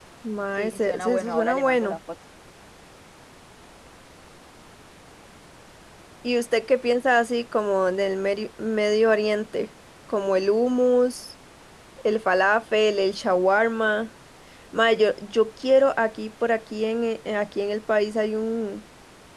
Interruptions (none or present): present